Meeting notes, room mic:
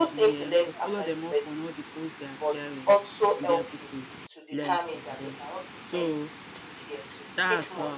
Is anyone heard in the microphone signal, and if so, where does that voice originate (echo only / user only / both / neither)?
both